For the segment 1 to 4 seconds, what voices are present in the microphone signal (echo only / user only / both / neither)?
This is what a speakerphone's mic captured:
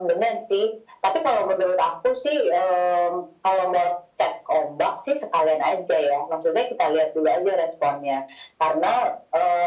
echo only